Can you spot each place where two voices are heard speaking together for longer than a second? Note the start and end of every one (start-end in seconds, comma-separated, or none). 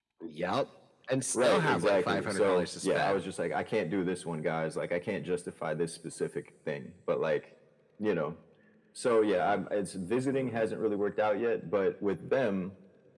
1.4-3.2